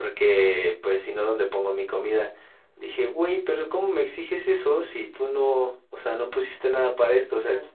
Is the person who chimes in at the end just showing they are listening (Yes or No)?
Yes